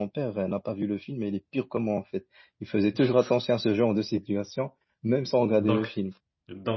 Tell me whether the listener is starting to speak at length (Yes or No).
Yes